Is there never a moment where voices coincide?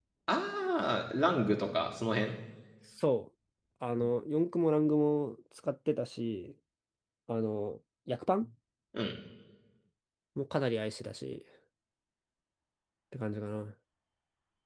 Yes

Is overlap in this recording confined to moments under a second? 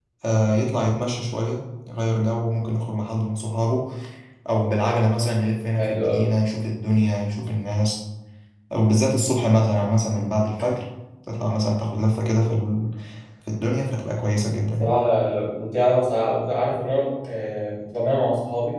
Yes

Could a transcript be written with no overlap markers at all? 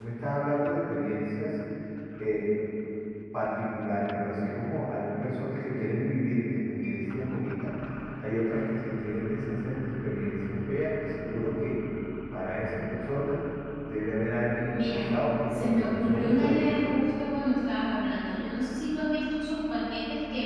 No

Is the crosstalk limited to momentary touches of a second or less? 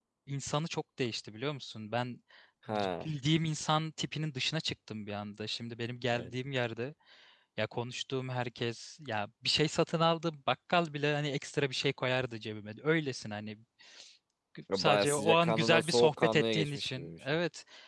No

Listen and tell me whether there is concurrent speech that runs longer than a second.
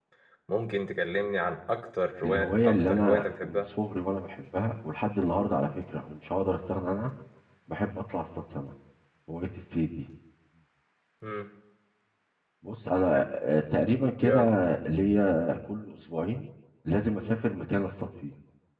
Yes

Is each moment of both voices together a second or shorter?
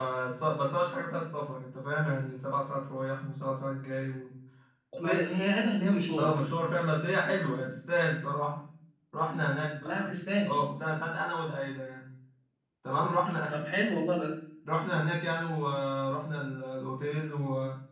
Yes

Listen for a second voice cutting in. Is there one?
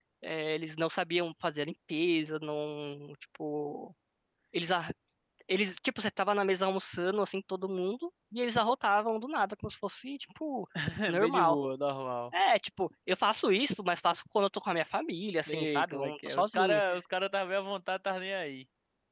Yes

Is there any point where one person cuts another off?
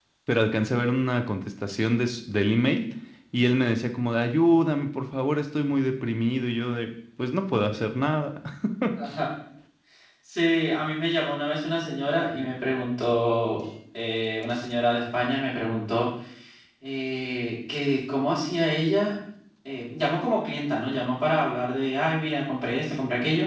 No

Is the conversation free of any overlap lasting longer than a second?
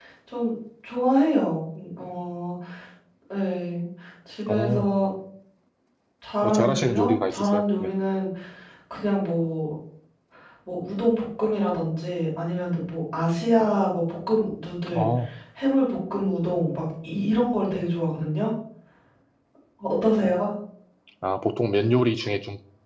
No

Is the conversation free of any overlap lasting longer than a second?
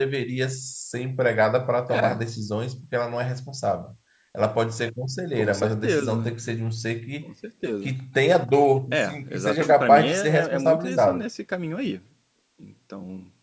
No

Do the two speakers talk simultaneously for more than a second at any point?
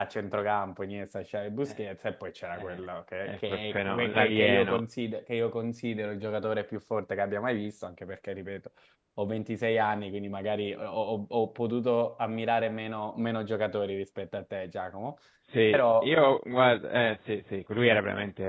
Yes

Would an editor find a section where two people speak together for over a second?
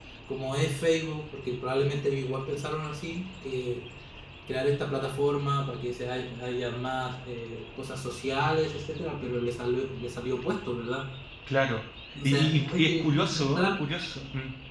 Yes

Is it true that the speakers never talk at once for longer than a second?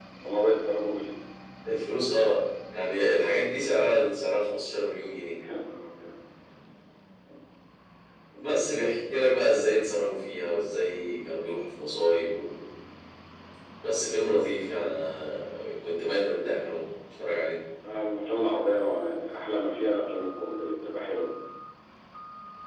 Yes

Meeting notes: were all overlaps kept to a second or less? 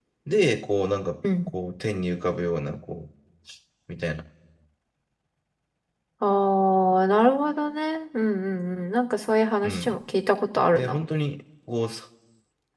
Yes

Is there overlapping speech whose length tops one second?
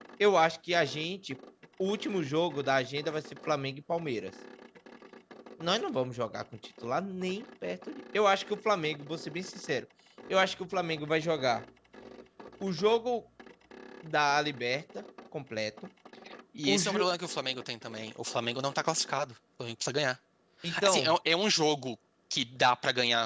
No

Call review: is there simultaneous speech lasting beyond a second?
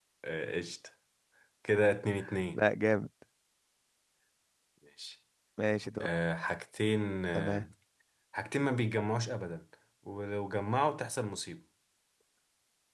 No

